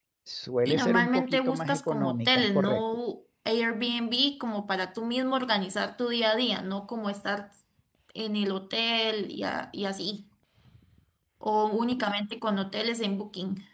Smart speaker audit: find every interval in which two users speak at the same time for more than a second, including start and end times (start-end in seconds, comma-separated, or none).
0.6-2.8